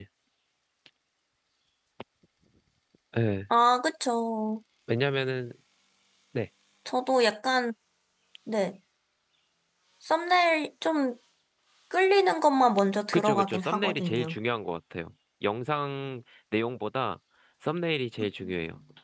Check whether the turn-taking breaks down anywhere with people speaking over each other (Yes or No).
Yes